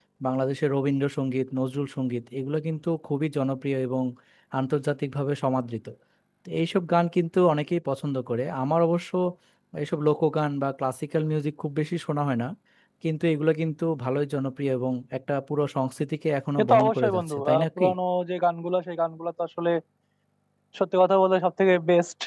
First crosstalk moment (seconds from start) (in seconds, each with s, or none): 16.6 s